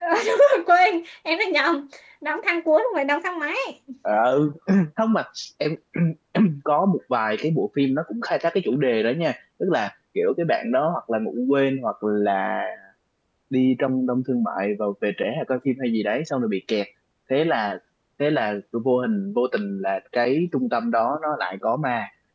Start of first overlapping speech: none

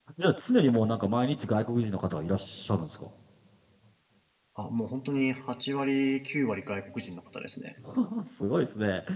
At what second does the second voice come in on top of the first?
none

